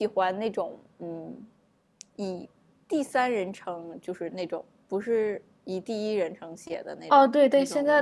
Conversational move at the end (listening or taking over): taking over